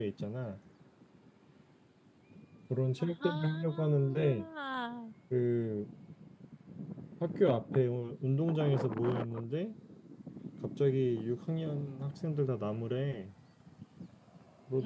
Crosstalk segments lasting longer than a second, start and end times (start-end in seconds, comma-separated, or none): 3.0-4.4